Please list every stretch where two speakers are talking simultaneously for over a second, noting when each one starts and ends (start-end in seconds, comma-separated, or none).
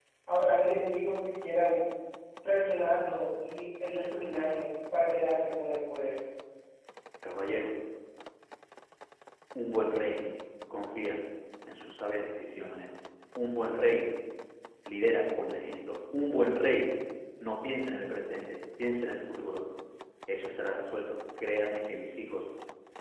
none